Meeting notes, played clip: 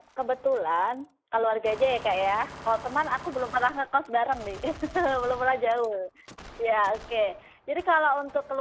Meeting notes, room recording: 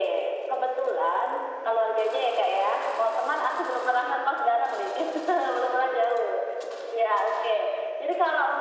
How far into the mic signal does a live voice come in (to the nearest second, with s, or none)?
none